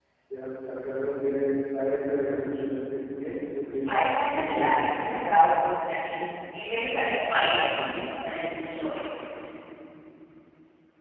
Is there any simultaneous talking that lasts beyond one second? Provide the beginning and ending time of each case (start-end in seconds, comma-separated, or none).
3.9-5.4